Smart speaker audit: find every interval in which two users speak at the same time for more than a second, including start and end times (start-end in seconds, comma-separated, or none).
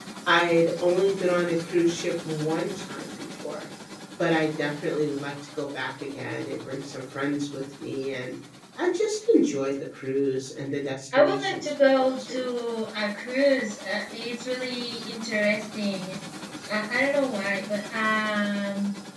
11.2-12.5